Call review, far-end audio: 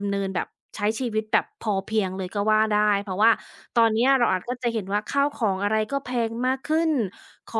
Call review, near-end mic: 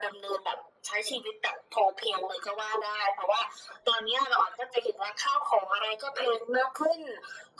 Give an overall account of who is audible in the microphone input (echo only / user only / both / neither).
echo only